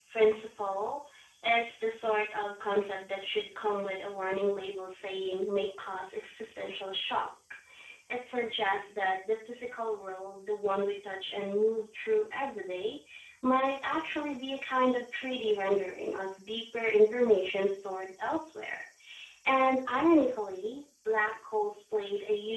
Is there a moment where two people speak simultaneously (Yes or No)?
No